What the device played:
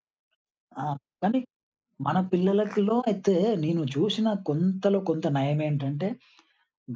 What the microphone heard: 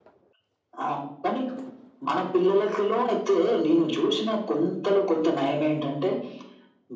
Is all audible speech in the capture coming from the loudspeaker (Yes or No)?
Yes